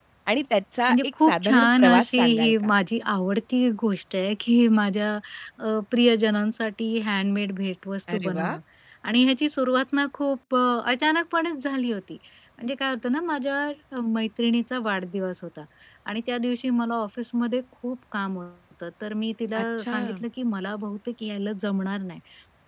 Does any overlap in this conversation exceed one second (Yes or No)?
Yes